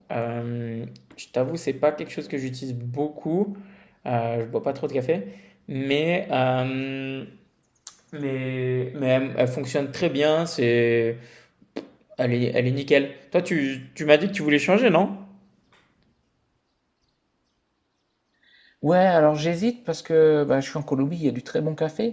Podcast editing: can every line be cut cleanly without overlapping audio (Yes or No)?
Yes